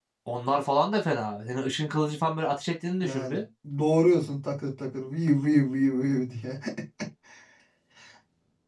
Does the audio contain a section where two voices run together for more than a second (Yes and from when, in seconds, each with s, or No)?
No